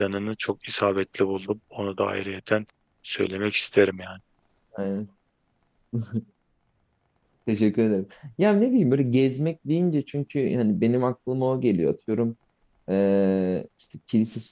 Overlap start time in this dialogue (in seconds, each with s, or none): none